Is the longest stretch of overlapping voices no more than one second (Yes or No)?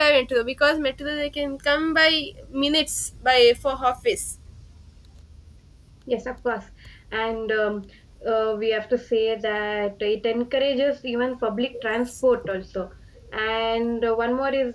Yes